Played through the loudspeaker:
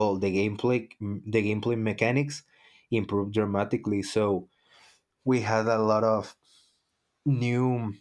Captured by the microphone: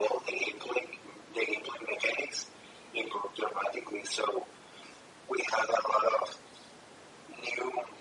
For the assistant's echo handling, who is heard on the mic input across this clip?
echo only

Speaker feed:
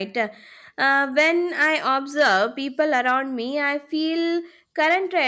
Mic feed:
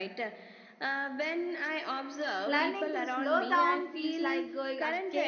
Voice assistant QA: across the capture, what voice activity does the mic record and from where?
both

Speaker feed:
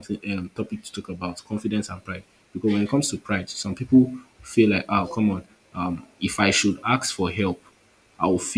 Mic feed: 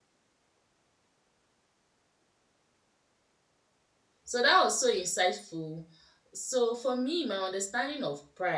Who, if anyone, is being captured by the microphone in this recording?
user only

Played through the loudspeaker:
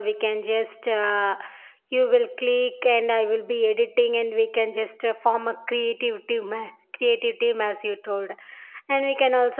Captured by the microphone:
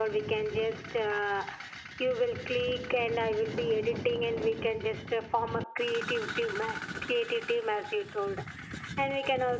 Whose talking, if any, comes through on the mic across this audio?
echo only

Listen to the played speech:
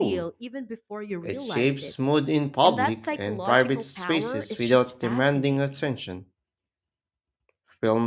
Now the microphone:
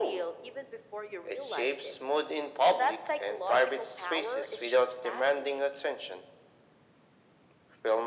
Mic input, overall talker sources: echo only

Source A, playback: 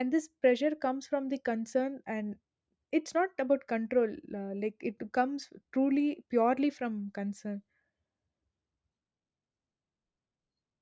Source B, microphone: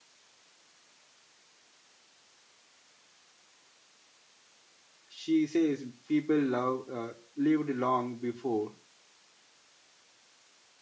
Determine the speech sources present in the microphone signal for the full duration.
user only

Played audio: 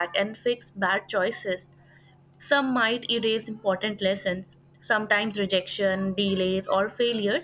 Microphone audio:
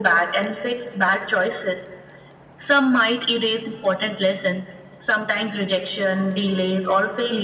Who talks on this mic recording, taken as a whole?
echo only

